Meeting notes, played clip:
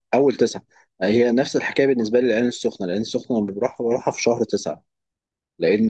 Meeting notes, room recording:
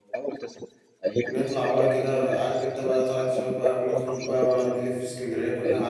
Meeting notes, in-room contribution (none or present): present